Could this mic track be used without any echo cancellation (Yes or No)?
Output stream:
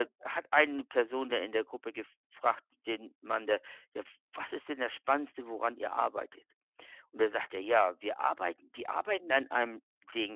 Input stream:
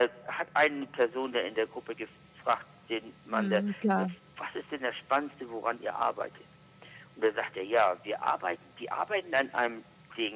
No